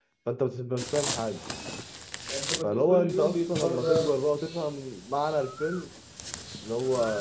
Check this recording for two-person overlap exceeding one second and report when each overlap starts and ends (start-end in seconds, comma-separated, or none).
2.6-4.2